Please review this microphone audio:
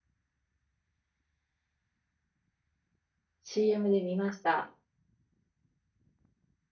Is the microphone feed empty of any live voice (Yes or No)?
No